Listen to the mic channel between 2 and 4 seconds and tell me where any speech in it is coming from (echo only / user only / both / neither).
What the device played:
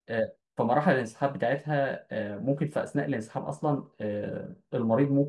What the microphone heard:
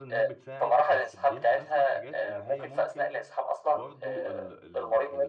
both